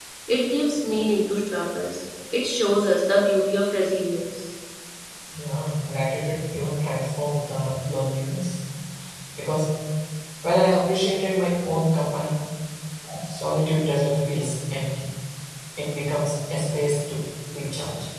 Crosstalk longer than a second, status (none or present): none